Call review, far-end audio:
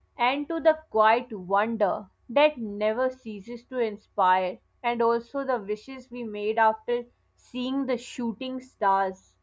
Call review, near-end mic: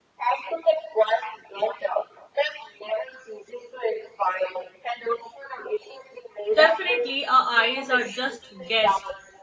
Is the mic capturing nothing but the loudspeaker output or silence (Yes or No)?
No